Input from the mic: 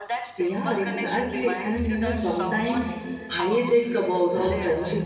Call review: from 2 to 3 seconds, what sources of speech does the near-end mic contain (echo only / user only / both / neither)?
both